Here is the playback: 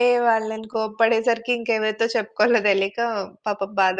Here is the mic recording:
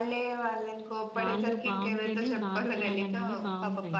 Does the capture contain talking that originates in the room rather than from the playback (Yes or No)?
Yes